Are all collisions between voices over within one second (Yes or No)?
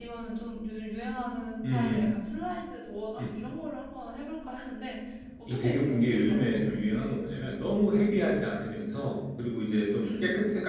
No